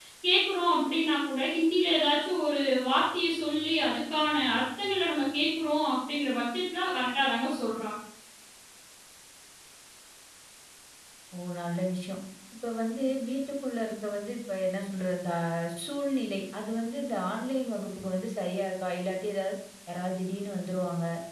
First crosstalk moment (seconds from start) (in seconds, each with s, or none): none